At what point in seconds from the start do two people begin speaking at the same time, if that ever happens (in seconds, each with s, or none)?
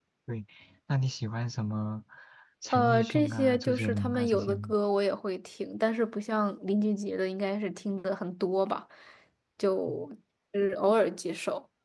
2.7 s